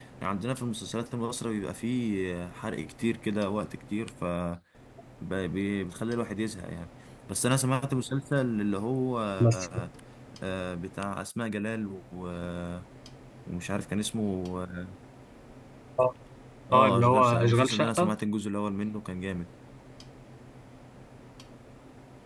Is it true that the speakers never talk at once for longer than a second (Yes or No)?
No